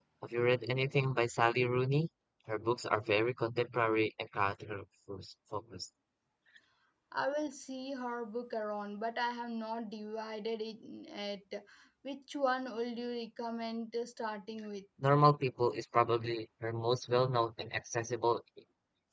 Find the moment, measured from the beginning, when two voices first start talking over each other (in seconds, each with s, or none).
none